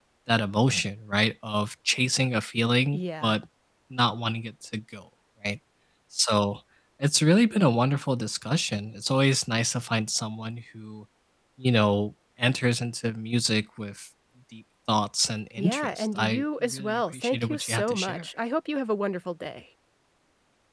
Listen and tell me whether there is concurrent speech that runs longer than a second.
Yes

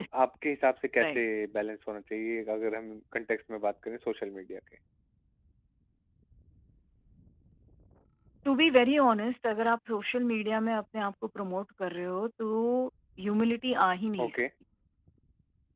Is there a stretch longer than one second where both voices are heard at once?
No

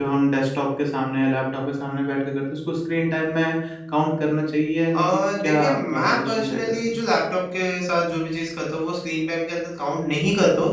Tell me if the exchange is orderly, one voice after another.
No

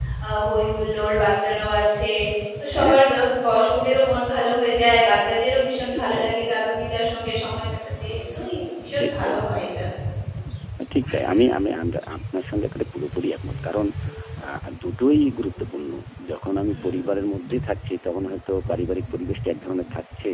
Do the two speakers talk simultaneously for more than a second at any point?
No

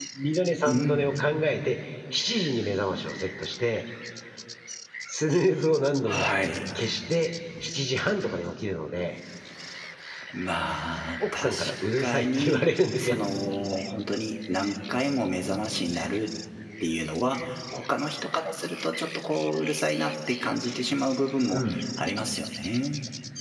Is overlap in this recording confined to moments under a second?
No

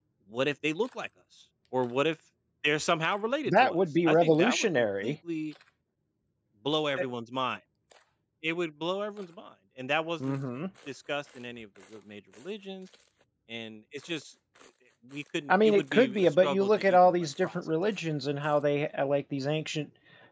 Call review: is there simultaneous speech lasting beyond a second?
Yes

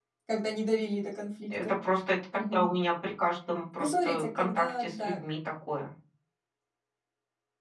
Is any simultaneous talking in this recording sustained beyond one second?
Yes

